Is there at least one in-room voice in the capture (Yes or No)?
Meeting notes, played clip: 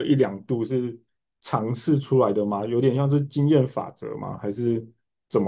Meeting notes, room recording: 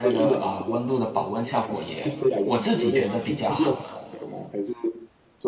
Yes